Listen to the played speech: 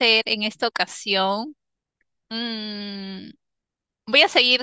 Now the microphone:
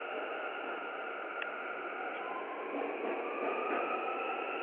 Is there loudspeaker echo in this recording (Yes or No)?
No